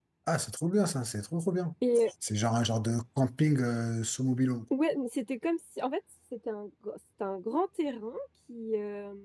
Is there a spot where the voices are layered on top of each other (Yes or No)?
No